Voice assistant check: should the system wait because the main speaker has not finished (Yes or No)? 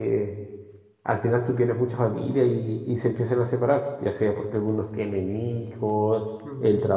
Yes